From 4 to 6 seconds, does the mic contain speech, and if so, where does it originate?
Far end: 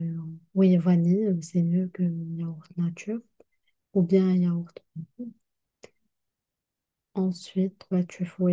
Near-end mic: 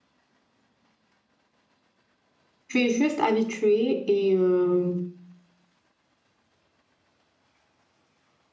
user only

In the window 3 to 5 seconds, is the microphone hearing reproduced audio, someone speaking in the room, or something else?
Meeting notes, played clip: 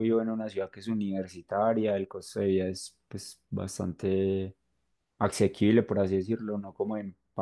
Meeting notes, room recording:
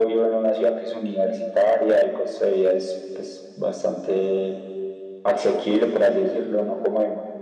echo only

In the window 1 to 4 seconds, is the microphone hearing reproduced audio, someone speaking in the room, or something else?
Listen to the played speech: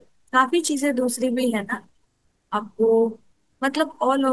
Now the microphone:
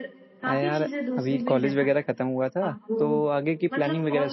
both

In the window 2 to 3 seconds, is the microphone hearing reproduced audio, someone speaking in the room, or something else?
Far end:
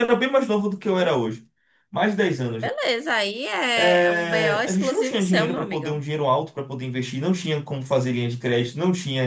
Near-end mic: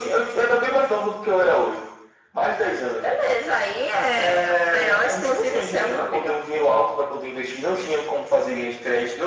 echo only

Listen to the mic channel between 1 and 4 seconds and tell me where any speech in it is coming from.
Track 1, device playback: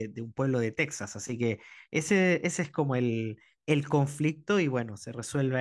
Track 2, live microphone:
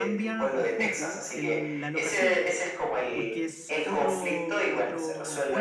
both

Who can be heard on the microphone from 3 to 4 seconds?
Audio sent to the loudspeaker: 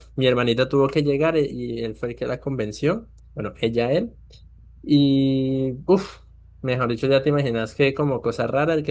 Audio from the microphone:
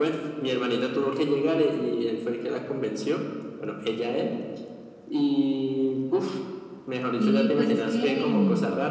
echo only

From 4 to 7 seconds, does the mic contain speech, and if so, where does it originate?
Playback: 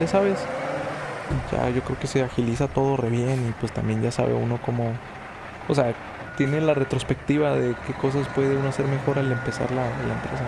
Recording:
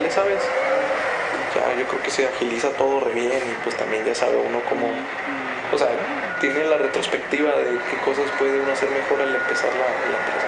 both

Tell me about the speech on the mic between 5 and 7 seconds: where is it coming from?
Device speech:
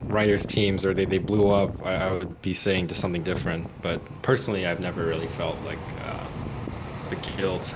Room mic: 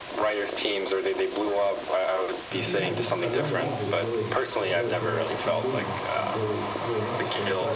both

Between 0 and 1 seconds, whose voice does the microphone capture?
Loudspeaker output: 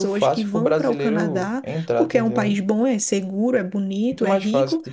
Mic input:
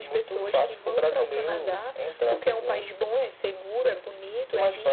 echo only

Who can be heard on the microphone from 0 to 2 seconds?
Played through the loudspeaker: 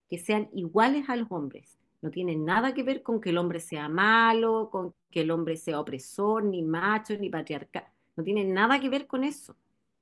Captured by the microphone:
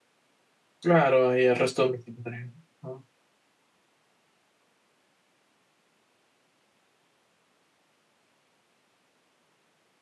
user only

